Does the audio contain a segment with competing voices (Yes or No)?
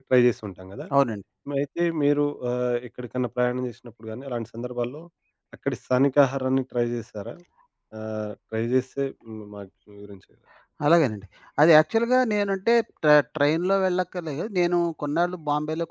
No